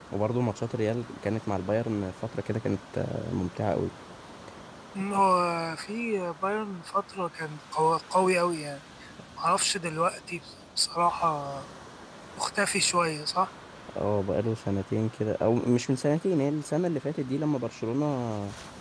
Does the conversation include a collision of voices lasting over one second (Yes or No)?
No